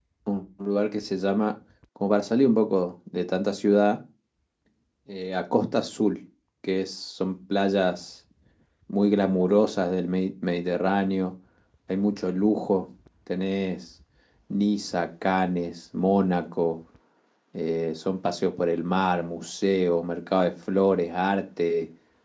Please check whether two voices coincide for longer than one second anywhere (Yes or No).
No